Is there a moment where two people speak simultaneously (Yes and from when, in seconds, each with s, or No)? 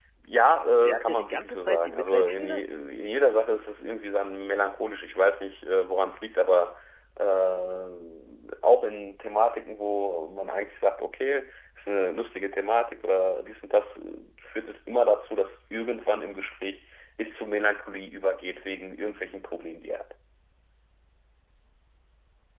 Yes, from 0.8 s